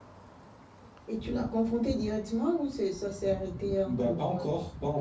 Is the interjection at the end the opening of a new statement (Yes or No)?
Yes